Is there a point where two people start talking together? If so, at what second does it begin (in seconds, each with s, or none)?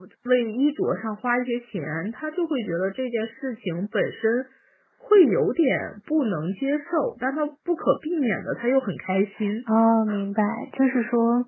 none